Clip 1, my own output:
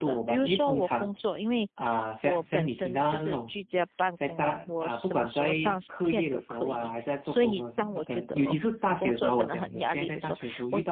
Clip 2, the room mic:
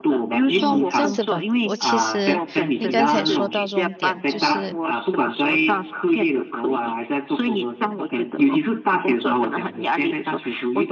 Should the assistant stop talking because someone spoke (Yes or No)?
Yes